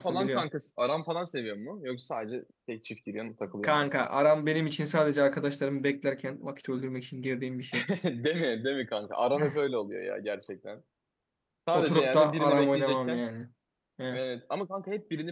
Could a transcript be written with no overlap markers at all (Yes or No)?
No